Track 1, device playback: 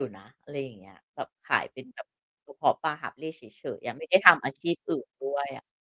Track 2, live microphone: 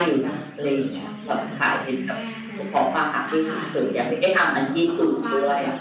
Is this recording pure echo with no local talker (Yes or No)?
No